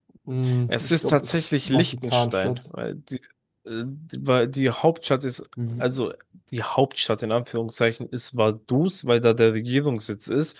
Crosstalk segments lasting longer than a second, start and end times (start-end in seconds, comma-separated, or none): 0.7-2.6